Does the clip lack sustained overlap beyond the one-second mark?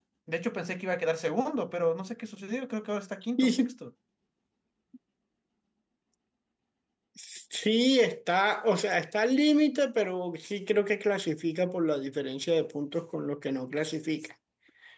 Yes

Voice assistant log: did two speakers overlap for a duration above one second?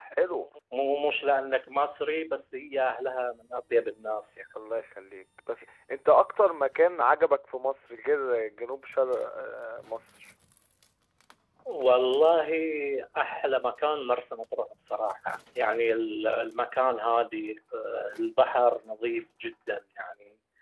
No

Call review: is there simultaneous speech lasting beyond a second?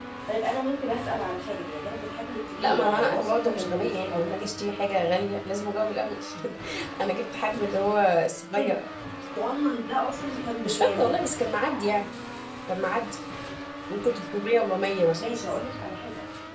Yes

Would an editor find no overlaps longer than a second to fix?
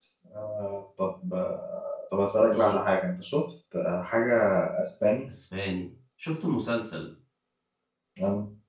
Yes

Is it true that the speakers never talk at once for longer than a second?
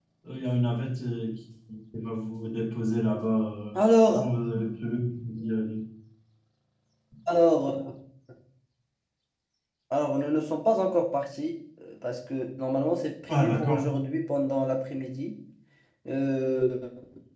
Yes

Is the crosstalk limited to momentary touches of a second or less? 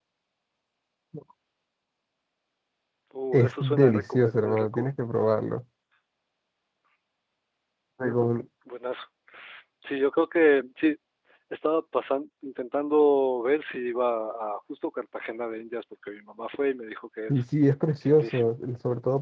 No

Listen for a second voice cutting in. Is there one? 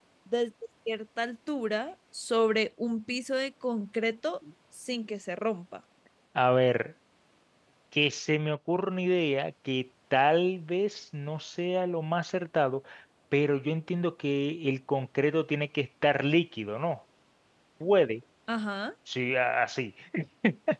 No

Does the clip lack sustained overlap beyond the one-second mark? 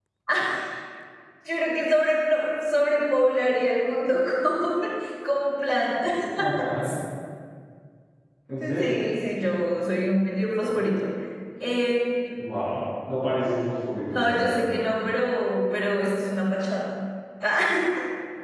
Yes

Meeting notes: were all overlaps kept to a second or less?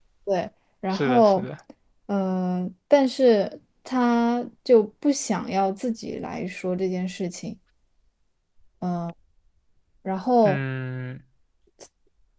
Yes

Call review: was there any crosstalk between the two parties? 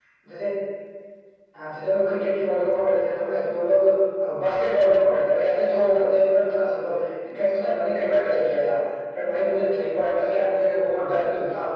No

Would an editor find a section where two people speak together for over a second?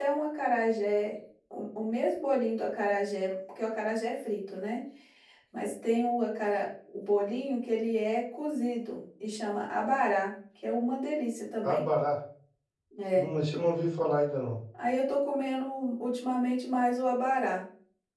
No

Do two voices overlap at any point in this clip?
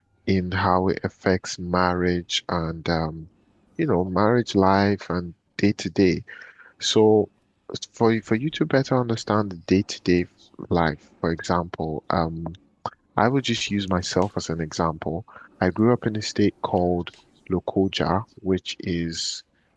No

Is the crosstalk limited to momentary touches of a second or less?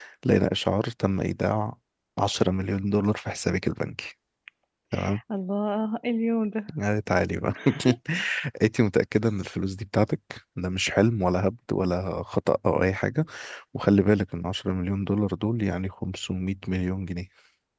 Yes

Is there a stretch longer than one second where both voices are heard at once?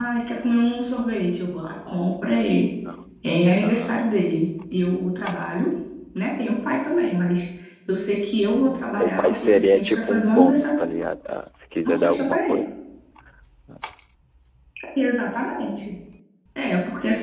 Yes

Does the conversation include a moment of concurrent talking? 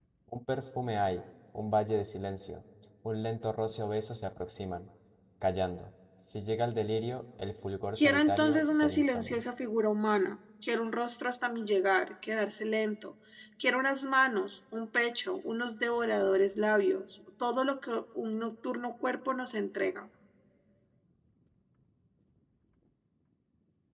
Yes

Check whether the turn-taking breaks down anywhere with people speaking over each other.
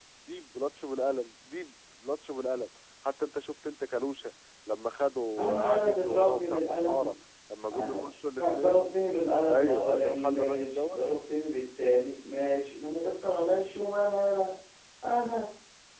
Yes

